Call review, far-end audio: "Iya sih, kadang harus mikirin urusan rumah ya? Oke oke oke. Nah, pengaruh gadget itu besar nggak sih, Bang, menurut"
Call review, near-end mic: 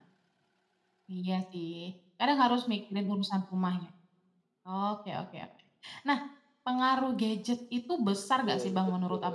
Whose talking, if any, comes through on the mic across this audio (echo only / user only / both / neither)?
both